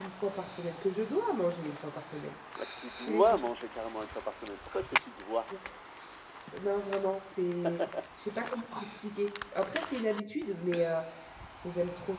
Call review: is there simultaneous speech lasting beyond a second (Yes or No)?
No